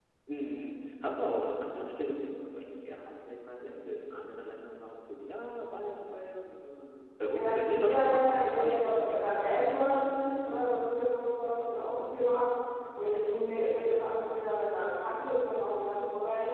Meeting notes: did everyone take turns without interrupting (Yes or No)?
No